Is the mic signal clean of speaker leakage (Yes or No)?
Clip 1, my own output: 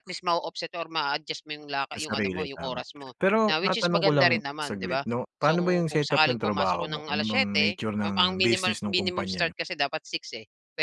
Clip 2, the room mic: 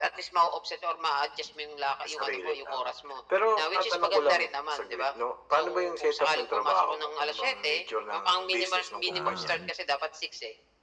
No